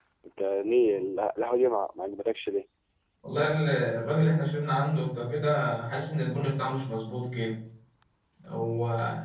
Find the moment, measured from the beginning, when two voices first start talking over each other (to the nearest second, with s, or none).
none